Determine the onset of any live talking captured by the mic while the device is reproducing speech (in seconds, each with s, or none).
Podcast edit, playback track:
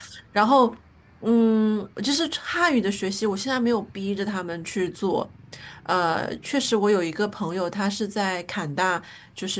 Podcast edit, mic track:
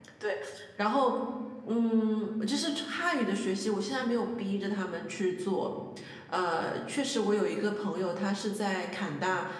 none